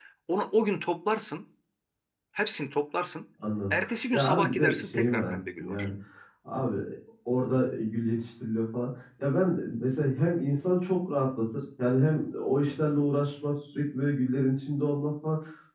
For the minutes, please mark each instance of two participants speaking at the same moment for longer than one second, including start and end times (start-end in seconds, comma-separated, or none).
4.1-5.9